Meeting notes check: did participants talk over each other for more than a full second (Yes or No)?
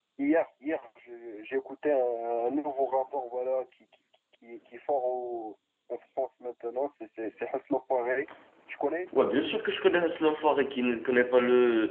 No